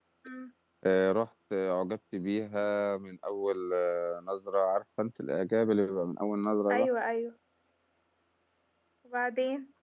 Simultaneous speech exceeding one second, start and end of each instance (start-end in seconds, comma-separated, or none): none